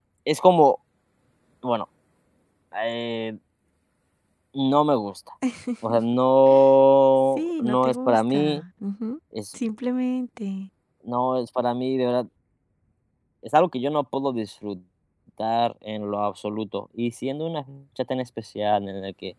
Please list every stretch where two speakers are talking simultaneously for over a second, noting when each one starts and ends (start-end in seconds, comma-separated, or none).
7.4-8.6